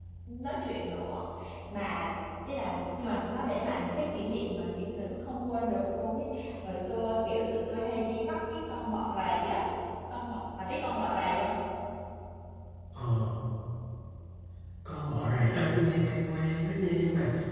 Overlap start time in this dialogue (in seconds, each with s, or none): none